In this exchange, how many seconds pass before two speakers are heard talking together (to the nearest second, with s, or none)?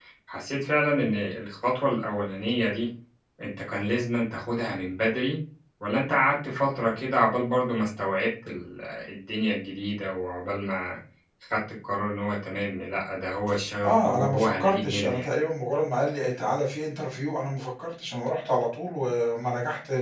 14 s